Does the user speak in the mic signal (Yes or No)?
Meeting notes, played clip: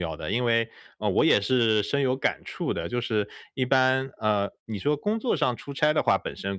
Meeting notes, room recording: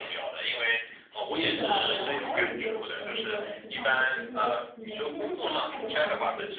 Yes